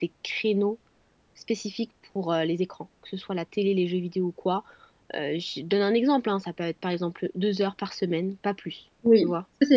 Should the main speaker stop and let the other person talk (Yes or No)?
Yes